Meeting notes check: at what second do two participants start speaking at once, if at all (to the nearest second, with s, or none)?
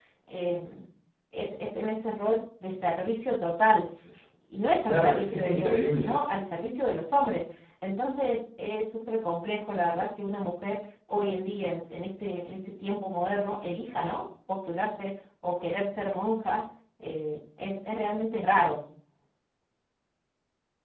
5 s